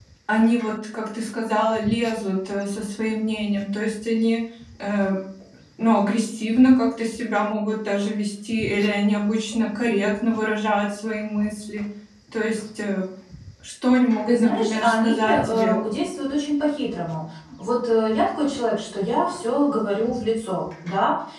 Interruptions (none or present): present